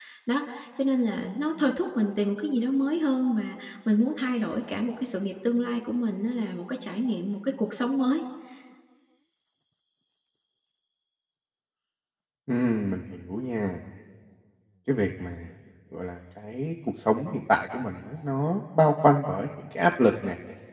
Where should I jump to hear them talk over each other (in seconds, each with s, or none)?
none